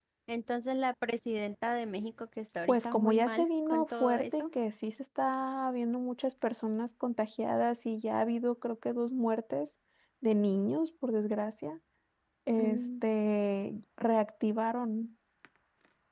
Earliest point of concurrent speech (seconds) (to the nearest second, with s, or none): 3 s